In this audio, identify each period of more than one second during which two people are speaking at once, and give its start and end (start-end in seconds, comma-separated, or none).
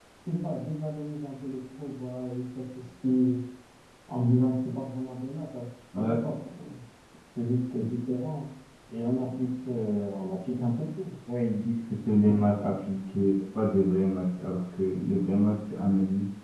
none